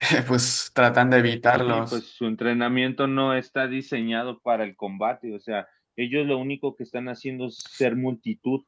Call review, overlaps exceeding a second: none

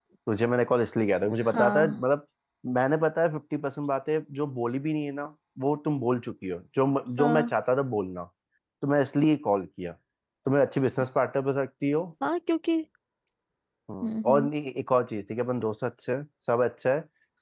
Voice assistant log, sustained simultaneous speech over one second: none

